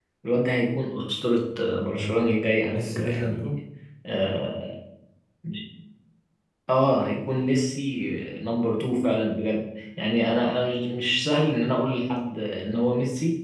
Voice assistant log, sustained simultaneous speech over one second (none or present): present